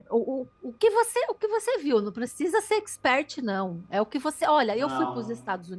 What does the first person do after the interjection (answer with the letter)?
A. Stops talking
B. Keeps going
B